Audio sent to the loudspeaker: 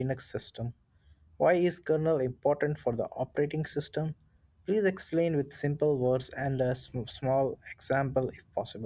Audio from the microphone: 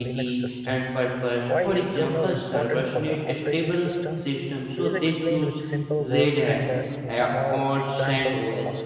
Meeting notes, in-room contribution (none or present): present